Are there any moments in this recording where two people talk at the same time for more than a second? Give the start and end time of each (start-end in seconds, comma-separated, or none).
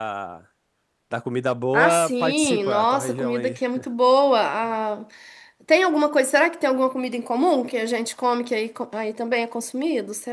1.7-3.6